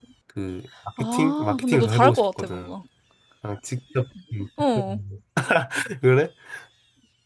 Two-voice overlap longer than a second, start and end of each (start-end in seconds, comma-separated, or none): 1.0-2.7